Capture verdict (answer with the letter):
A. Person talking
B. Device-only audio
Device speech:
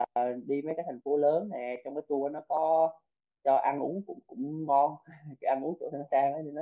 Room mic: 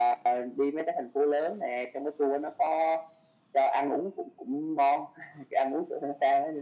B